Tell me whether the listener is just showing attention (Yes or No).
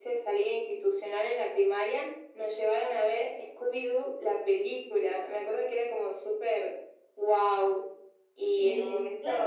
No